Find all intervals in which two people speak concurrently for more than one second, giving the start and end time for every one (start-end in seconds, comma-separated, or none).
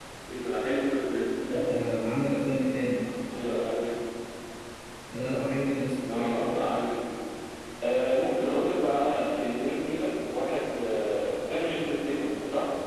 none